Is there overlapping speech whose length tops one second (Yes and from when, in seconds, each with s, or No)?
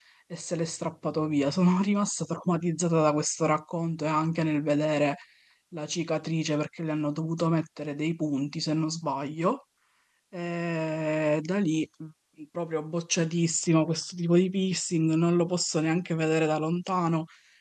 No